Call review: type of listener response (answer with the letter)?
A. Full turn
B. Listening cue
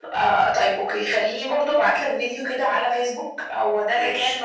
B